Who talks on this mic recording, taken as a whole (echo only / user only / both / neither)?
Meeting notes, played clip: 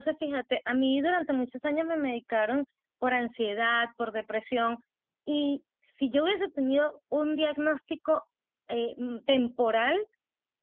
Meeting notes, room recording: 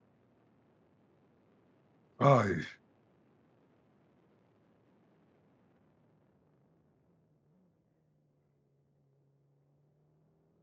user only